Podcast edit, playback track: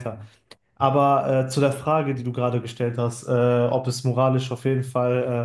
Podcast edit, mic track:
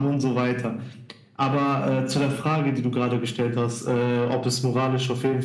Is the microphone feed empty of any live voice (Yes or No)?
Yes